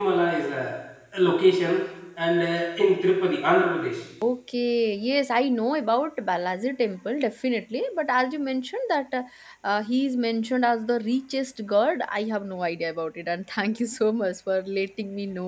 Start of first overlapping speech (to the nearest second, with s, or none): none